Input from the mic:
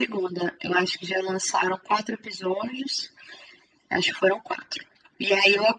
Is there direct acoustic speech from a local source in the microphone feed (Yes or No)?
No